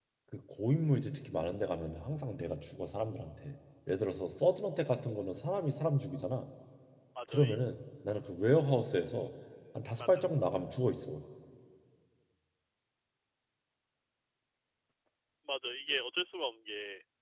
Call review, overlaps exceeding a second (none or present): none